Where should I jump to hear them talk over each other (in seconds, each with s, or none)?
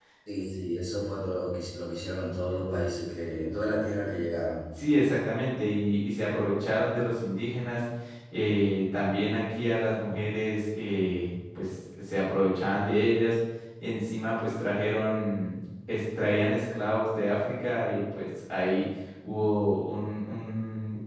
none